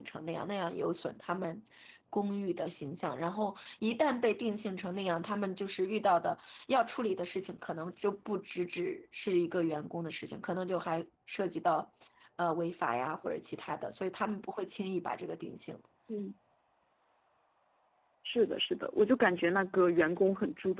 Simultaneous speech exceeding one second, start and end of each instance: none

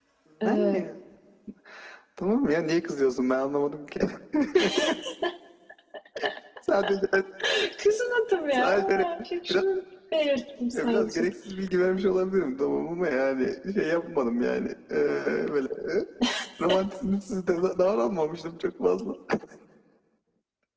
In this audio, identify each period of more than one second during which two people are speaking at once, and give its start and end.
none

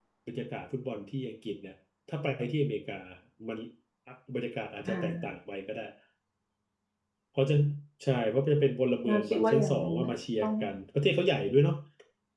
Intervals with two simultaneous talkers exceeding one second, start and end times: 9.0-10.5

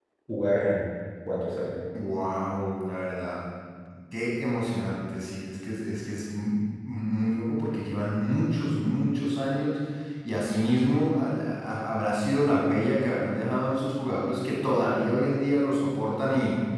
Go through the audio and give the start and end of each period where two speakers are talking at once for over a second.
none

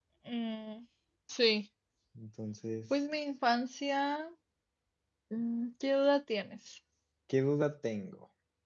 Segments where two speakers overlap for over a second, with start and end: none

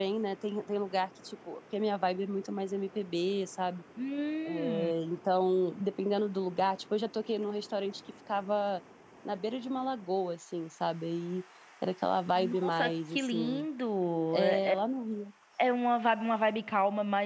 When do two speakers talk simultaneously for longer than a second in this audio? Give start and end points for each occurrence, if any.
12.3-13.6

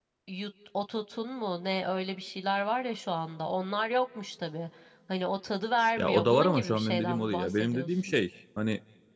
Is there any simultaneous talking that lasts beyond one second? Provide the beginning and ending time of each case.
6.0-8.2

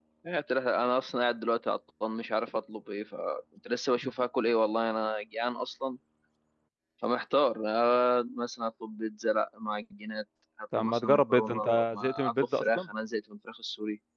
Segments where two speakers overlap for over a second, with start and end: 10.8-12.9

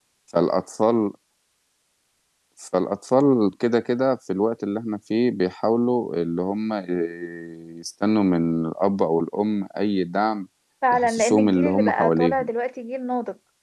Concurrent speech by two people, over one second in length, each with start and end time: 10.9-12.5

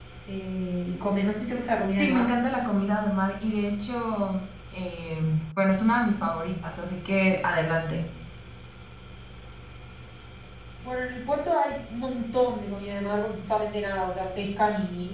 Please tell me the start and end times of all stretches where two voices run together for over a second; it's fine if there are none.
none

